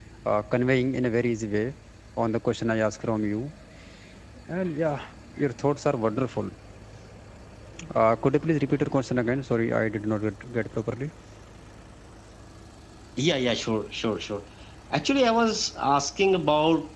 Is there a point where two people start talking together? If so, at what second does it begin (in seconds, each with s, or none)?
none